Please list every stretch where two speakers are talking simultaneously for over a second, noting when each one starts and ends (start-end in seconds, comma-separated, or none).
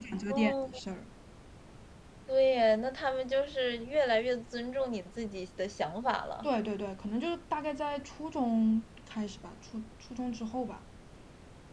none